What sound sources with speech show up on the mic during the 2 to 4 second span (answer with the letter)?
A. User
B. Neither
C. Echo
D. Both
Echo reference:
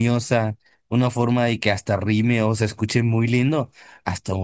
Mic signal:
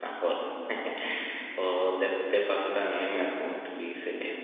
A